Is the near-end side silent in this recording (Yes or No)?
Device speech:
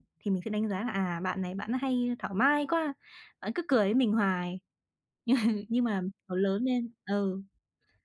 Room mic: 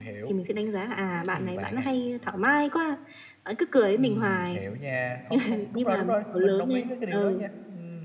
No